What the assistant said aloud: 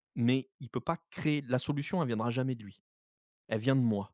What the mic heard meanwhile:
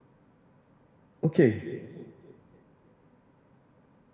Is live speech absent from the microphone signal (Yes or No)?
No